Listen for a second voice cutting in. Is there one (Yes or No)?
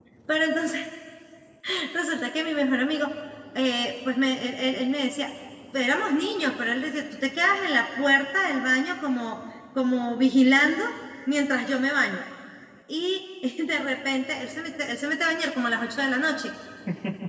No